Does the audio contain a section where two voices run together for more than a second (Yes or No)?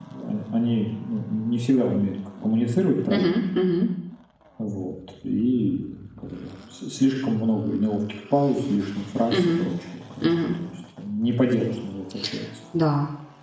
No